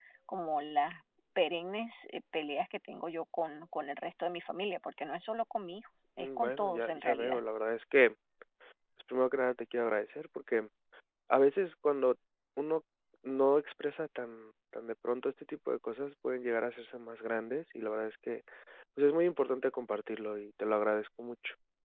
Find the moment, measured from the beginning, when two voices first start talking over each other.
6.2 s

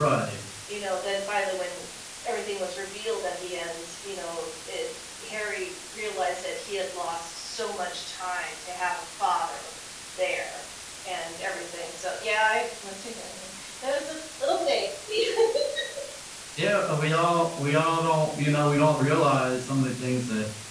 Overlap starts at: none

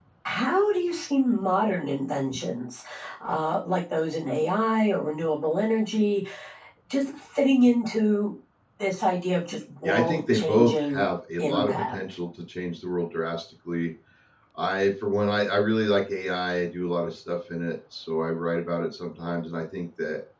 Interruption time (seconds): 9.8 s

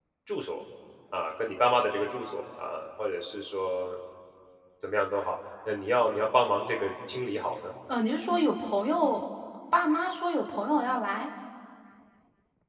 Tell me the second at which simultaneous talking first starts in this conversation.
none

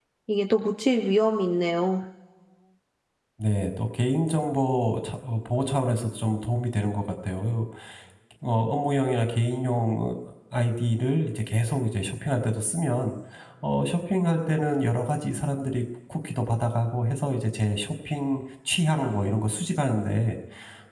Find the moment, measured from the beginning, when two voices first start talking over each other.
none

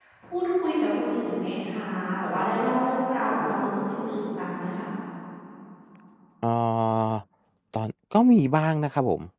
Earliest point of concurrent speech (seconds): none

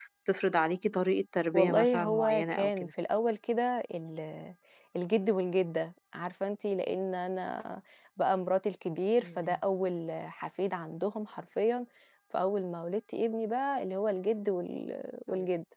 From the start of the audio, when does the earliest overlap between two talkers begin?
1.5 s

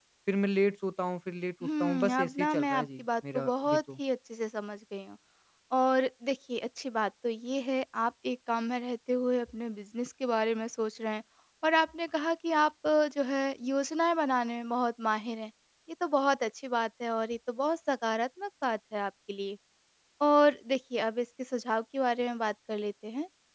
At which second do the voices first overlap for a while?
1.6 s

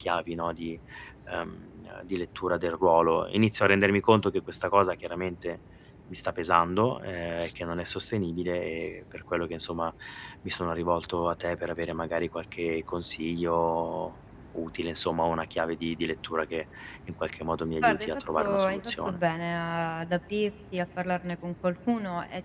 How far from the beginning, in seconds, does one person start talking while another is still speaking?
17.8 s

